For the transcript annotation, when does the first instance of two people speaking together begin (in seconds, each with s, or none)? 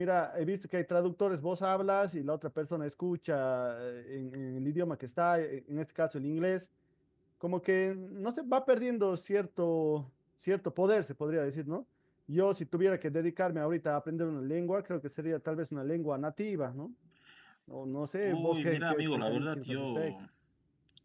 18.2 s